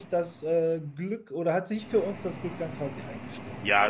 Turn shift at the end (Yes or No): Yes